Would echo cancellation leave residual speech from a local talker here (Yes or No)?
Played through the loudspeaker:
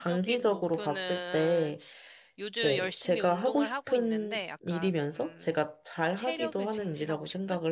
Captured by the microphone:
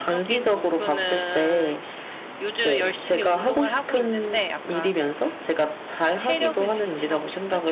No